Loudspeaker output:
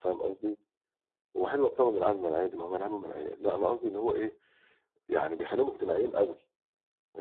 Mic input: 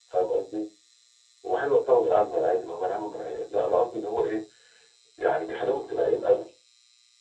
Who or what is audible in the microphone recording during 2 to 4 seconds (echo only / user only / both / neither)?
echo only